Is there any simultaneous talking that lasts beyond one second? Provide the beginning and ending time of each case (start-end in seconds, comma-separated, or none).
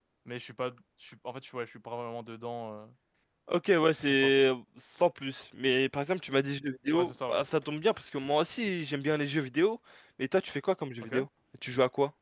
none